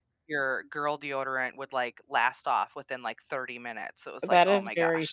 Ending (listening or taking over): taking over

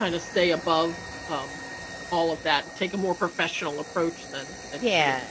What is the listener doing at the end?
taking over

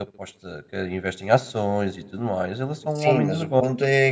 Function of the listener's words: taking over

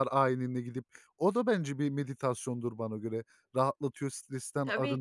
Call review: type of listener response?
taking over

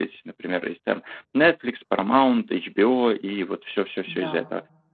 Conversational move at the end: listening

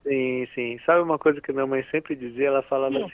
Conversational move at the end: listening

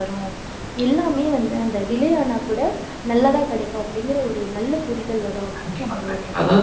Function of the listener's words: taking over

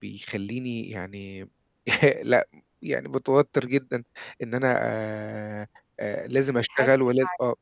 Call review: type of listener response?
listening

